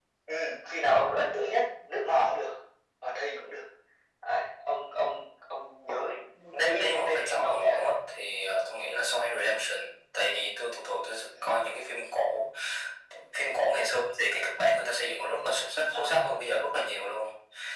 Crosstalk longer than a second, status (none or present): present